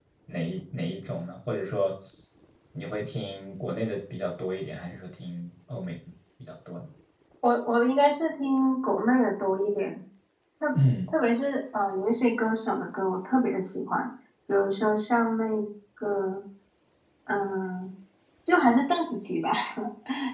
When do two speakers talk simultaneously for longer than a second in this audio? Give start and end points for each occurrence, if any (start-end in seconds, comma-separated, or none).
none